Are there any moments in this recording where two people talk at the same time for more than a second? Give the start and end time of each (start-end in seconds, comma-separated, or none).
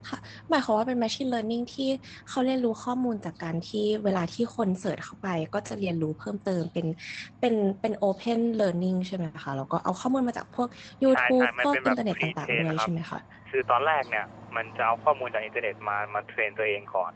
11.1-12.9